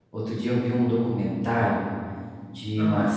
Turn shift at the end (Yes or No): No